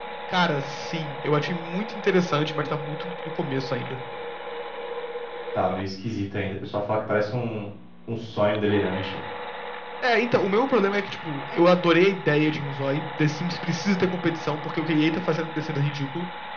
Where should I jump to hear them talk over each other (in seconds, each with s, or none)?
none